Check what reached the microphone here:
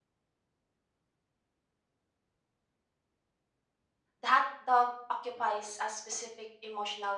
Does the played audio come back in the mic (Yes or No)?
No